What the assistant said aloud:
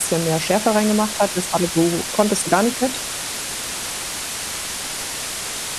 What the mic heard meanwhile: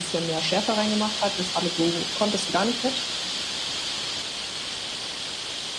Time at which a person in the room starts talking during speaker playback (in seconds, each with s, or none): none